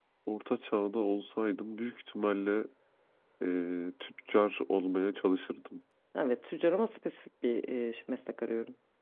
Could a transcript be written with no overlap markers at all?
Yes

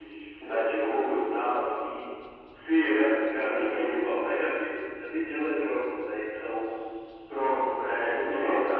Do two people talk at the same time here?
Yes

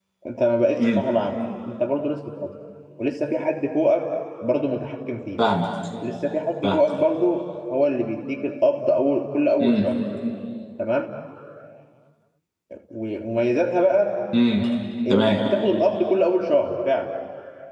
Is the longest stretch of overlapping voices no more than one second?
Yes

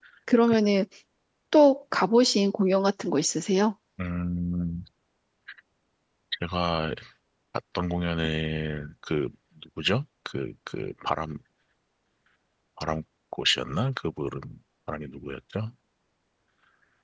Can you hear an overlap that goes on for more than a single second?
No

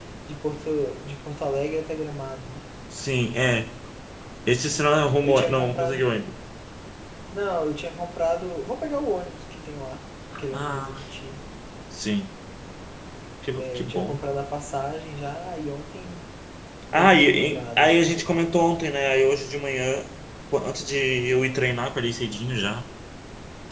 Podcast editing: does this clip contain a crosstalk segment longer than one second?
Yes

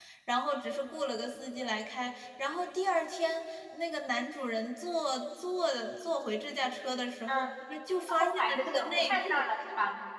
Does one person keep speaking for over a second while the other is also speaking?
Yes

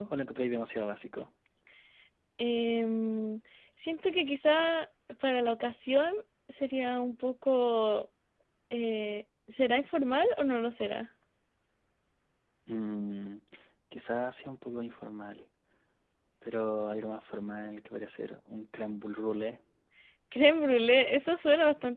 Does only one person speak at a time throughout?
Yes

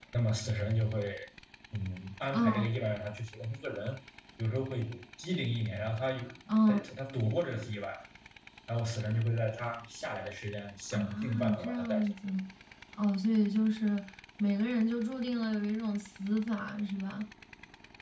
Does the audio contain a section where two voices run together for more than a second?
Yes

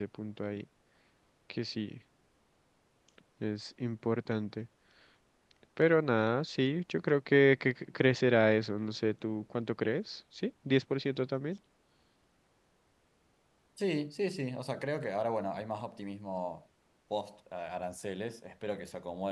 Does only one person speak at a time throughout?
Yes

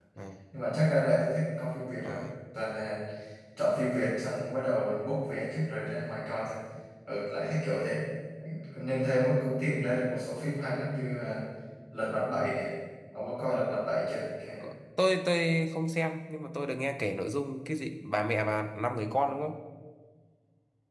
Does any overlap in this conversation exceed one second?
No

